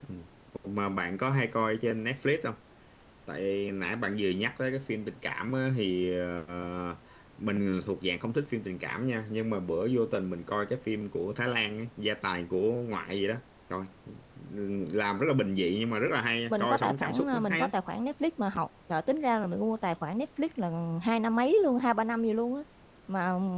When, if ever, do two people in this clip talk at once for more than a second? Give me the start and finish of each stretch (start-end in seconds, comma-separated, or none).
16.5-17.7